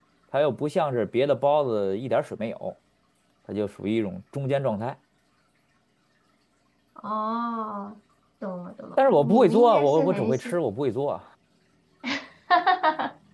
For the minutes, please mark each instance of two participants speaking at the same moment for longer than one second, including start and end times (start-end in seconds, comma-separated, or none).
9.1-10.6